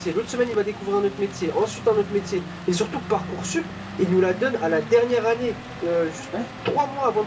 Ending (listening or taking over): listening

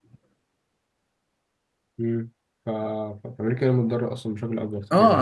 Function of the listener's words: taking over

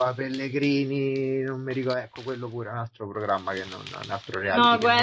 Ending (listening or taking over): taking over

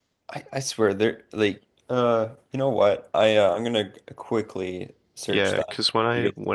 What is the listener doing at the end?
taking over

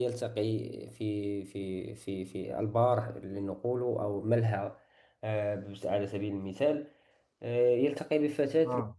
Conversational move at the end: listening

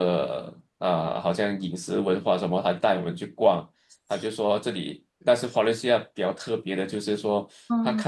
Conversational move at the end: listening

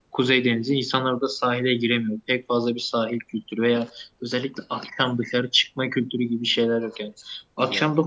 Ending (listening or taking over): listening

